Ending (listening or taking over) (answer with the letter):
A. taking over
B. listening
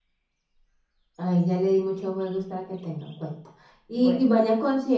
B